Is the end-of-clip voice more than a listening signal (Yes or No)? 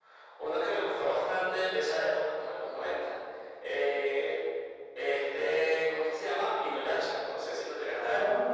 Yes